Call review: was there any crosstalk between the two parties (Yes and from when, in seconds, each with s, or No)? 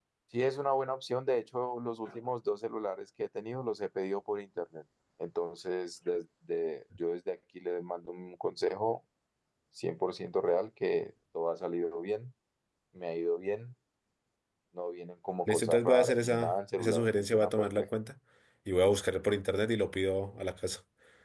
Yes, from 15.5 s